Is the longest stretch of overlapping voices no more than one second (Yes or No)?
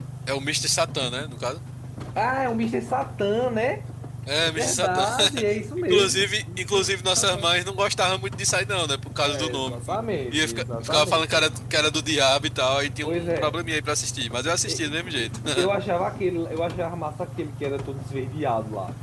No